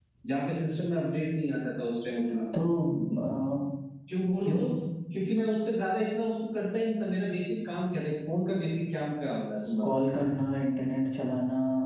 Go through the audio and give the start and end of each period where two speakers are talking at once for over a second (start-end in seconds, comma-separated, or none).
none